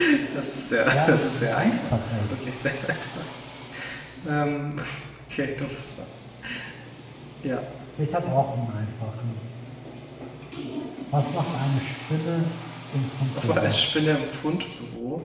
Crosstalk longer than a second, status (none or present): present